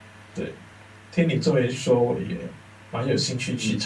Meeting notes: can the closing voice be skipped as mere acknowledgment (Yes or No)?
No